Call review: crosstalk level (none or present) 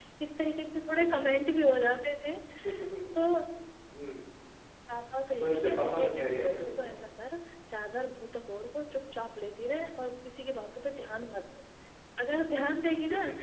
present